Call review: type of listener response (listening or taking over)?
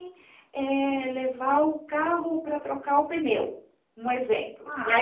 listening